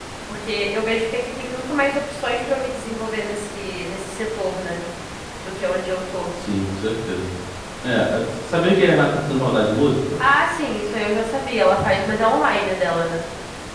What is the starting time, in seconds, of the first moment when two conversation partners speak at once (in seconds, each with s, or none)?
none